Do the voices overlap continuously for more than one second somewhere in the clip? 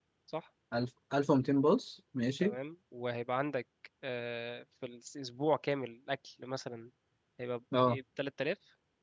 No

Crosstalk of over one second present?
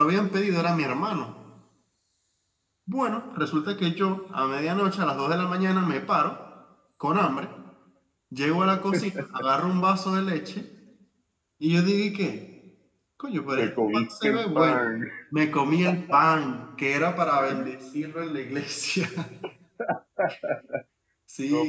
Yes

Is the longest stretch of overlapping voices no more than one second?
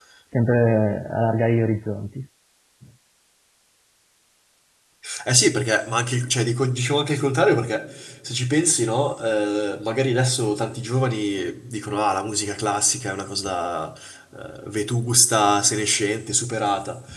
Yes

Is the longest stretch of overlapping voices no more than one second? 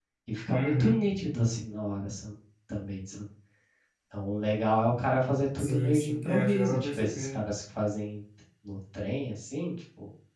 No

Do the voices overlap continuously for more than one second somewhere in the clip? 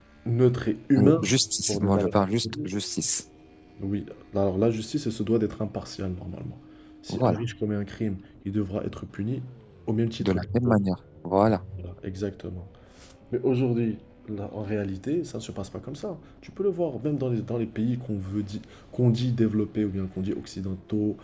Yes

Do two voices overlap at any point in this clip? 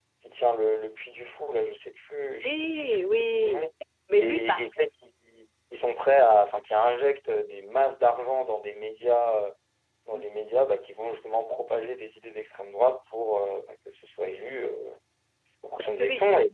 Yes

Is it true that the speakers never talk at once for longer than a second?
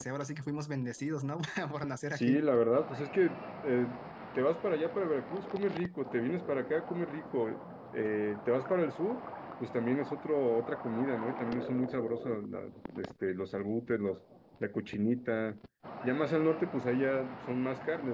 Yes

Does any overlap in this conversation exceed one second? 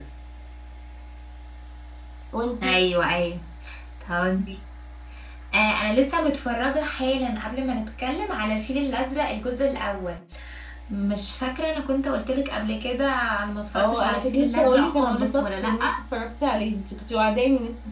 Yes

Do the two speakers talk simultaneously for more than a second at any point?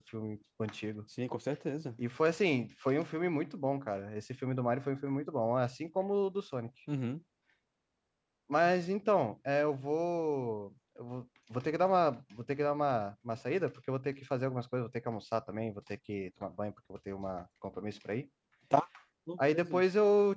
No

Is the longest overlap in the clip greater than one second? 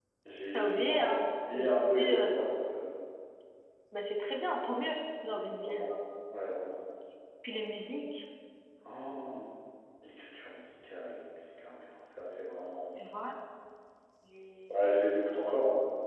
Yes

